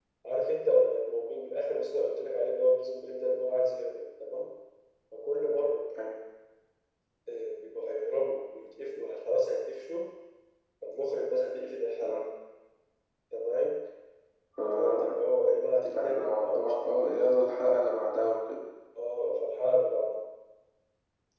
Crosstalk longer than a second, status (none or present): present